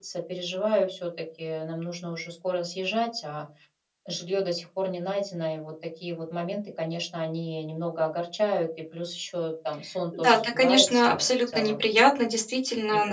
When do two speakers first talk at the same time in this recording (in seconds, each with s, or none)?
10.1 s